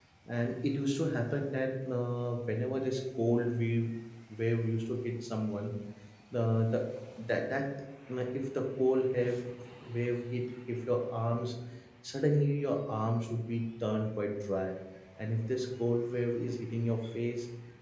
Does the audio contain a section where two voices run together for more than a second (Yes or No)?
No